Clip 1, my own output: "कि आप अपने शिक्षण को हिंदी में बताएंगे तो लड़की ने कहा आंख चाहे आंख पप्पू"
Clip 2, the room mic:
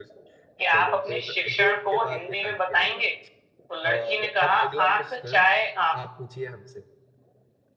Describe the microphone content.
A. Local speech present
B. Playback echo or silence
A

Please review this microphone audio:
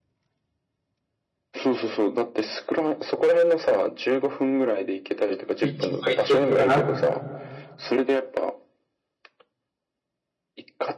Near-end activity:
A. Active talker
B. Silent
A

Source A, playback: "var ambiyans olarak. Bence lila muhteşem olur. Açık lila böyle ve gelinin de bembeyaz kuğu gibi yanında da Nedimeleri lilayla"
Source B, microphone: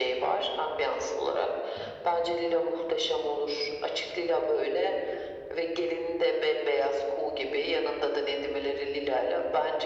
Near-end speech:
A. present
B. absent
B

